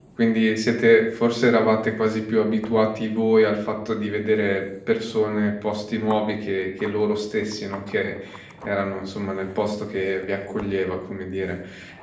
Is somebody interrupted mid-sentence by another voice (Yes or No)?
No